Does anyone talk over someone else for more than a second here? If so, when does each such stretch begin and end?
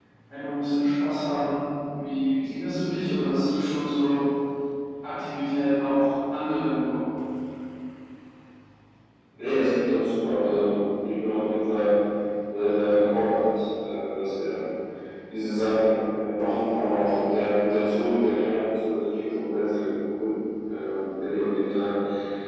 none

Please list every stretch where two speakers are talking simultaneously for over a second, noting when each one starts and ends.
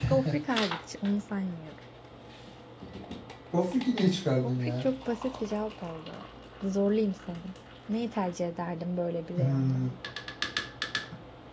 none

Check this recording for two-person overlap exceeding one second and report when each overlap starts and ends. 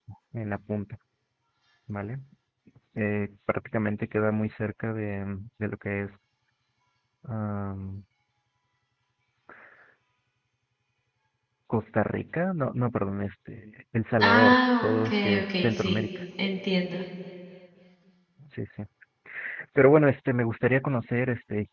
14.2-16.1

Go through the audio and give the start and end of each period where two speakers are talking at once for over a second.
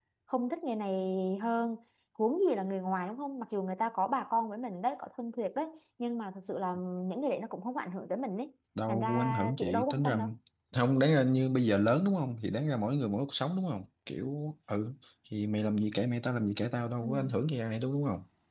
8.9-10.2

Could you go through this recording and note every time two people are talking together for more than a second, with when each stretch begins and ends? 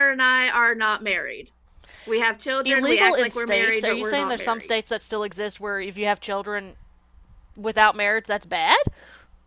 2.6-4.7

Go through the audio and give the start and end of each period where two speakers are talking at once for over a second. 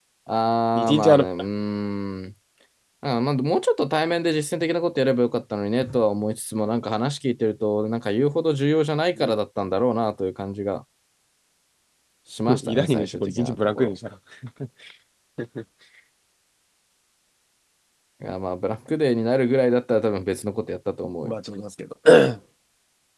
12.6-13.9

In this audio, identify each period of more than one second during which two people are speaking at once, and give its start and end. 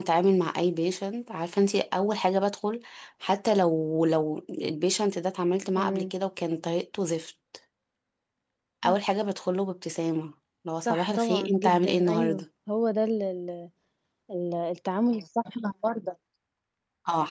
10.9-12.4

